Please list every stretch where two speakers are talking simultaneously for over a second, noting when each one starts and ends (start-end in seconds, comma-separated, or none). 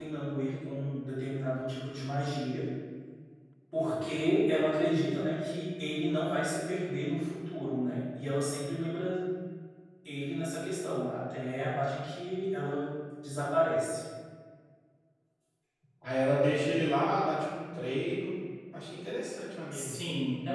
none